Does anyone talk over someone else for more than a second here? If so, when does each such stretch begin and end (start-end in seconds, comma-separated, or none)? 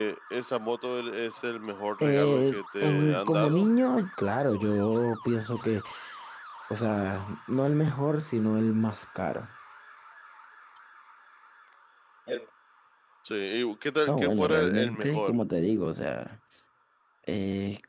2.0-3.7, 14.1-15.3